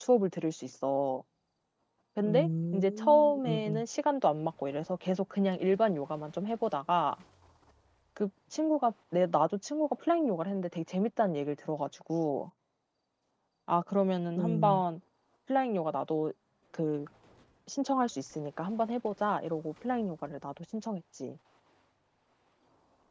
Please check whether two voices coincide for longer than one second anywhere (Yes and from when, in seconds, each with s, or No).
Yes, from 2.2 s